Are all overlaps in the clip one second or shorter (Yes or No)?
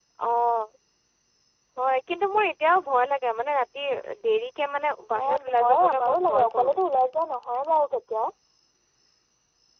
No